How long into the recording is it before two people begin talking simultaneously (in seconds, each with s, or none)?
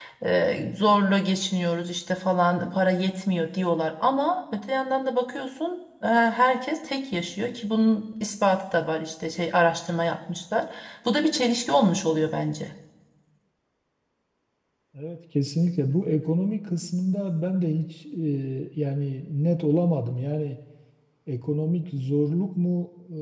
none